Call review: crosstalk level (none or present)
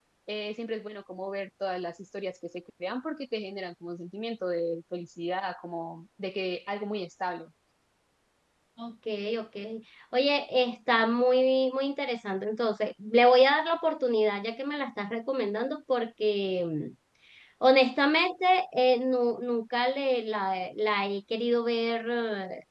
none